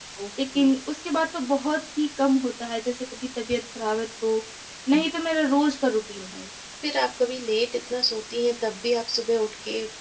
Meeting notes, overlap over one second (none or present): none